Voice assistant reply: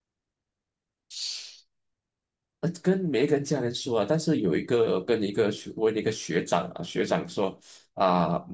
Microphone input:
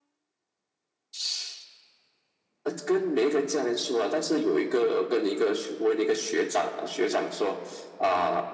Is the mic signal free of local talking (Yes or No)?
Yes